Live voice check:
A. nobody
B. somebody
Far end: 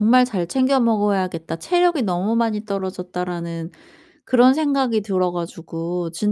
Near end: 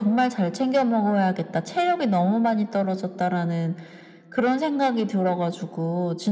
A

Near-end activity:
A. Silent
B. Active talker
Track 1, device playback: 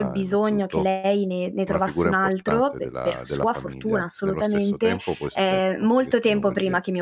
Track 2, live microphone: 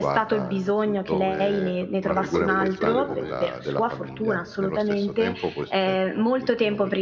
B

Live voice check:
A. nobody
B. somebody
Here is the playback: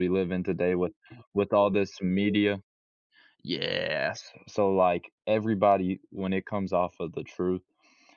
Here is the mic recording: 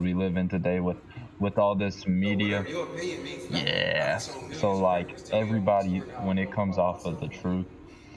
B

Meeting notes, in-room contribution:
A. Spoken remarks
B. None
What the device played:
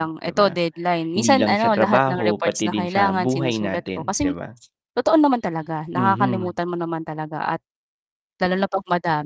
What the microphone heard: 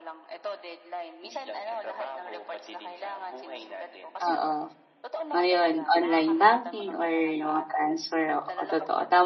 A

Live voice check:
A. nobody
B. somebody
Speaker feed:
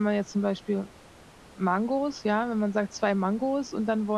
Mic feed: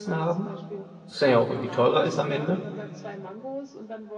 B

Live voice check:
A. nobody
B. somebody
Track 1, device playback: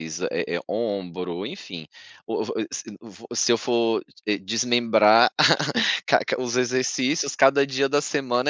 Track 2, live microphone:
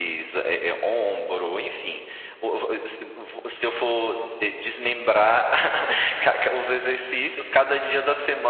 A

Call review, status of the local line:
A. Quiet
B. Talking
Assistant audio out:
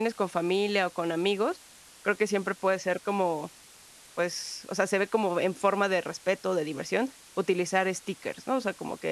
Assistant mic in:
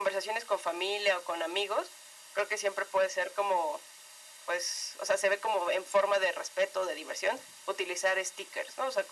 A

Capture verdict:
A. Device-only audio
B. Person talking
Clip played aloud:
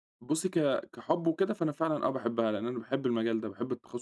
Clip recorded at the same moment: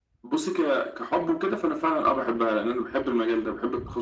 A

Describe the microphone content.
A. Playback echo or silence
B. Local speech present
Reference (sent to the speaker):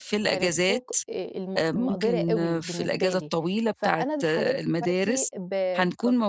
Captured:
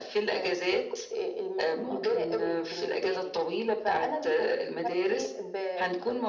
A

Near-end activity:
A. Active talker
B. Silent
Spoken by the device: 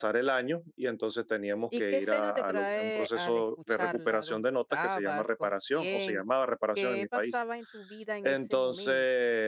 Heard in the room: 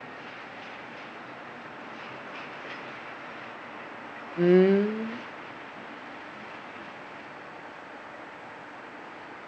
A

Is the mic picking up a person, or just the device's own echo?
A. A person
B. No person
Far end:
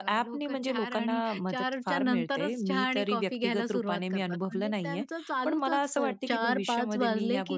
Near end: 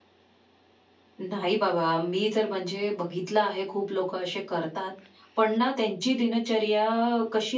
A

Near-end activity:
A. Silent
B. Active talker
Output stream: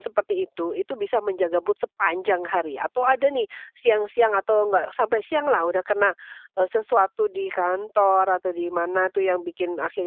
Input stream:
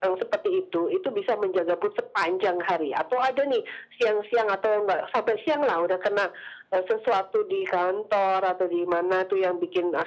A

